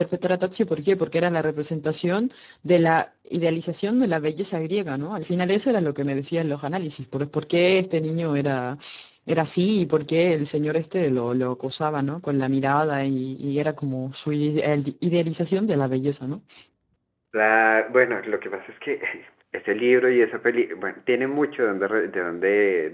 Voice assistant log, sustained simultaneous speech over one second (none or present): none